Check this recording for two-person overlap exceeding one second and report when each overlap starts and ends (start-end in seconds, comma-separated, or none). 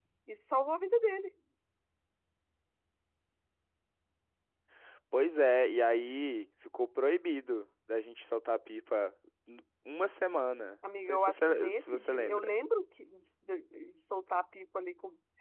11.0-12.6